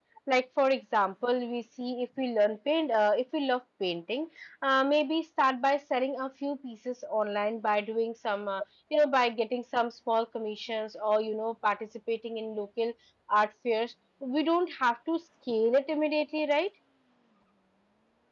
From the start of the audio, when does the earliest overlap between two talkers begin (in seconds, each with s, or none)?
none